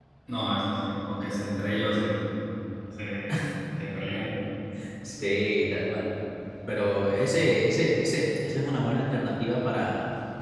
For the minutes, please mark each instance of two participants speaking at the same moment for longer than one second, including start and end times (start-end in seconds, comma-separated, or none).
none